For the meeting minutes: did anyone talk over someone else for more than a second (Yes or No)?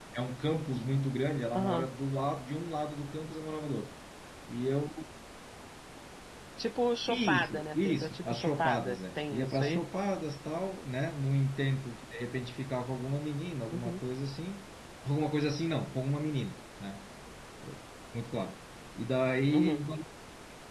Yes